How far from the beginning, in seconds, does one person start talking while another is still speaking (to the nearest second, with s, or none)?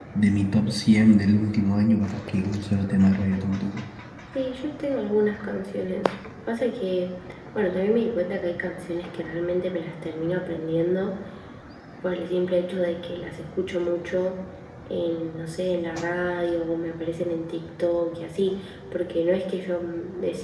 none